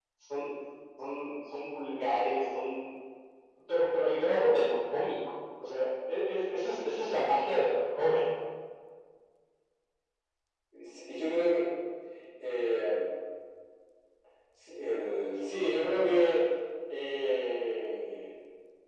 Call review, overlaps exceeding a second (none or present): none